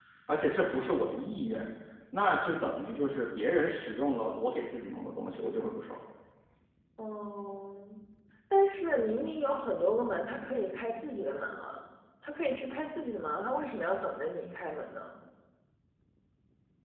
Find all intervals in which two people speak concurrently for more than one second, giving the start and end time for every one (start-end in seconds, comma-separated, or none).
none